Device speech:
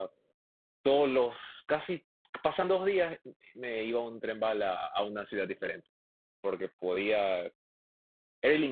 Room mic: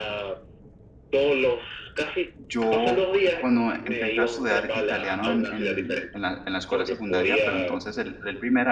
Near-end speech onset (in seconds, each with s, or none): 2.4 s